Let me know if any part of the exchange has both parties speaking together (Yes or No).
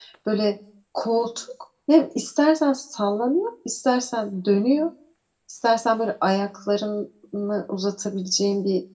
No